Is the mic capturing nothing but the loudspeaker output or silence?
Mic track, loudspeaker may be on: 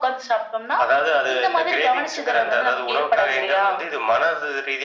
Yes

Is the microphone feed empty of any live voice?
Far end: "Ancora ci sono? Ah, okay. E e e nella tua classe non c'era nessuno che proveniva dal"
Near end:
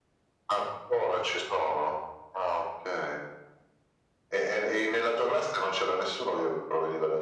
Yes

